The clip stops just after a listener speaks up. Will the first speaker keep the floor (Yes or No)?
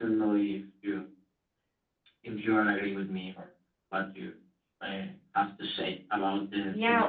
No